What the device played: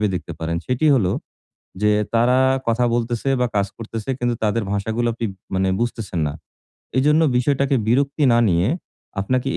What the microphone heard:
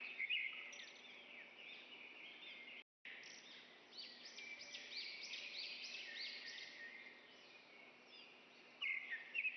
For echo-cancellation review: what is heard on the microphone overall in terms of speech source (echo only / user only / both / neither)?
neither